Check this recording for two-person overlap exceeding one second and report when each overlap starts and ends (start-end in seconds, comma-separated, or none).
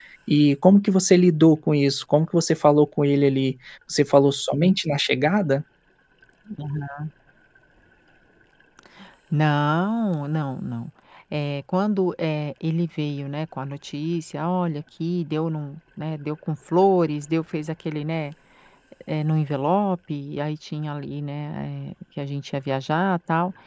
none